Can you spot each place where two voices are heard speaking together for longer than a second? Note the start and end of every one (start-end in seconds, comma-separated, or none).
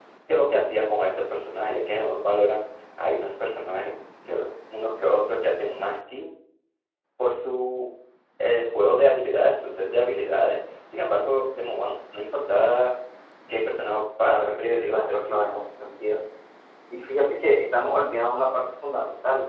14.2-15.4